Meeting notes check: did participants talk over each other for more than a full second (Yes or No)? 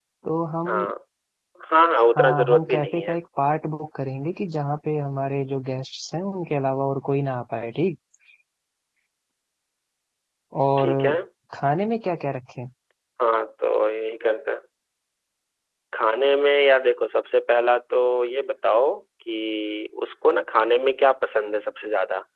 Yes